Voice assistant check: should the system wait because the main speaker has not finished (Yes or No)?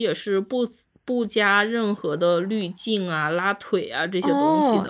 No